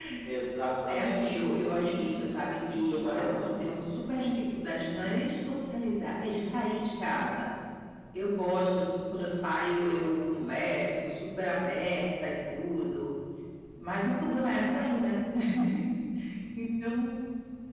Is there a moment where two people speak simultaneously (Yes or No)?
Yes